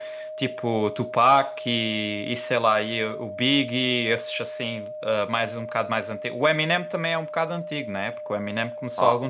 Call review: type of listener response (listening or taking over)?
listening